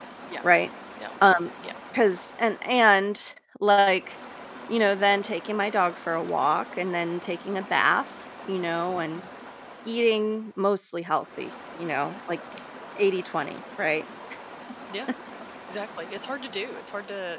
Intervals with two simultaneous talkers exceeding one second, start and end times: none

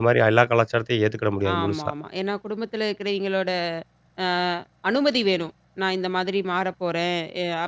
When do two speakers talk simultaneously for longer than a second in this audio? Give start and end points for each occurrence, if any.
none

